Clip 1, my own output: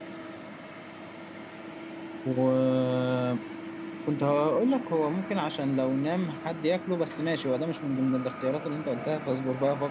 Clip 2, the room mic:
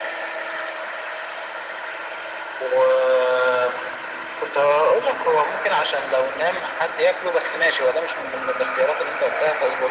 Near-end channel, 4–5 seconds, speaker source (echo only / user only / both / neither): echo only